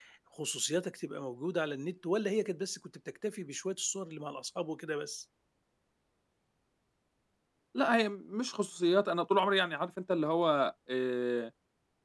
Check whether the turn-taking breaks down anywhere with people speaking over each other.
No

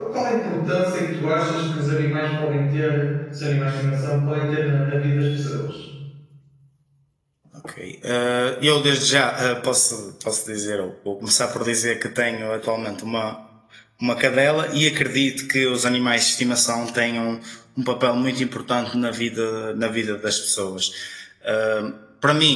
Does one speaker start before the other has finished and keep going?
No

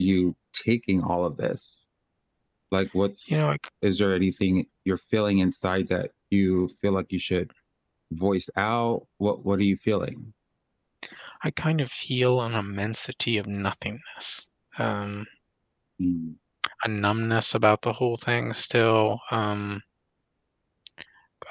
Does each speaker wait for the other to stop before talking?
Yes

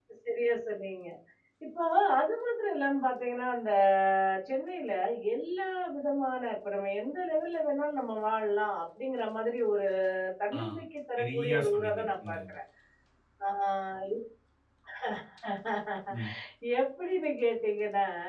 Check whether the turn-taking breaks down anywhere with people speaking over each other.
Yes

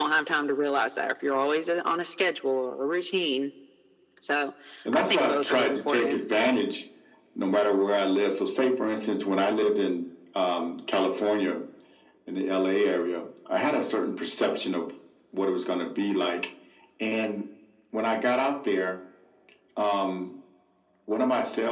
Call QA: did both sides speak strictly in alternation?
No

